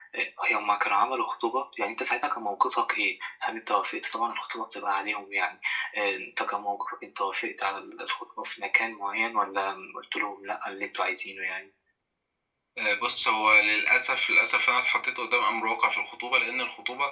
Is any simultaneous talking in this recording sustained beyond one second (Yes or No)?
No